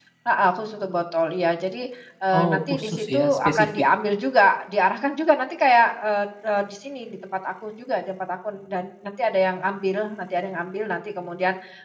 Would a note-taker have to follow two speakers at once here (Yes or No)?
Yes